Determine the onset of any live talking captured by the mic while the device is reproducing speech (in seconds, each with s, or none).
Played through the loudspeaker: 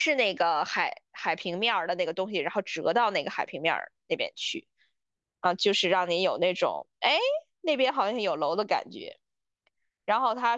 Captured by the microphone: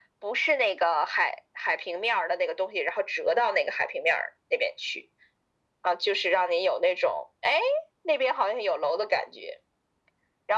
none